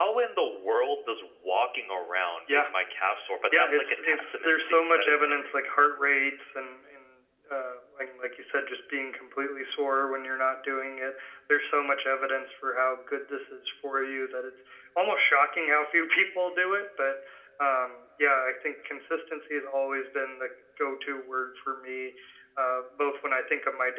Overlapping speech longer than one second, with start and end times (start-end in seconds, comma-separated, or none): 3.6-5.5